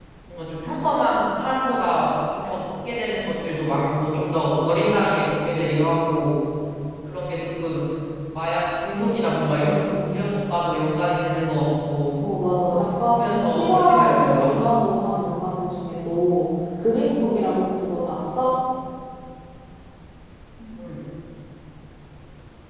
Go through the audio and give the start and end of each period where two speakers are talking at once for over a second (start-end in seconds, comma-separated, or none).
13.1-14.6